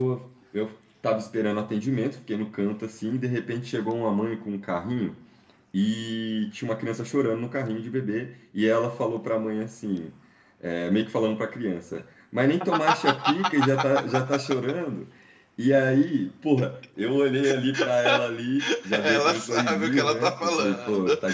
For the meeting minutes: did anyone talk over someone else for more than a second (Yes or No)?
Yes